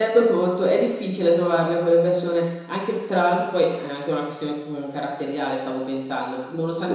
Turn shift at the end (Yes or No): No